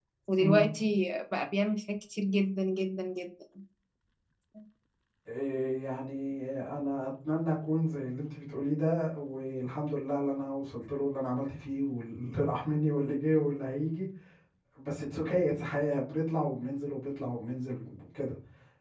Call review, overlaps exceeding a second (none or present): none